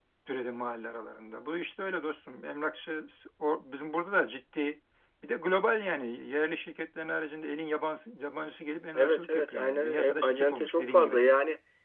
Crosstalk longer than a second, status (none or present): present